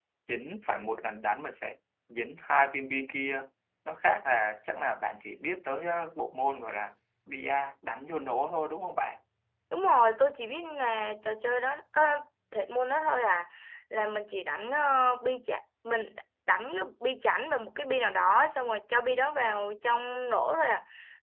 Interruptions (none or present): none